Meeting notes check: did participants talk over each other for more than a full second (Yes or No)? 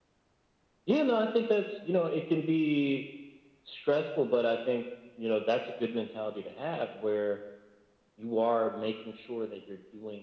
No